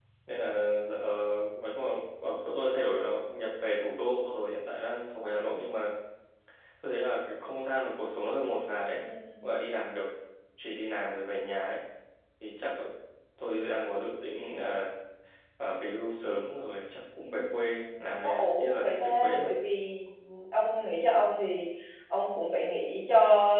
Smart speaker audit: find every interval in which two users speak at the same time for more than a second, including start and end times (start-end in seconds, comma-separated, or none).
17.4-19.4